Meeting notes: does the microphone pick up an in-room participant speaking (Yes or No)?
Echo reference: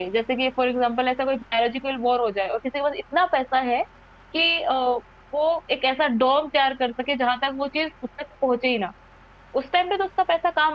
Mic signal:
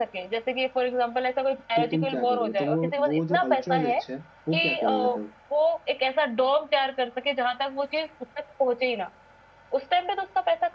Yes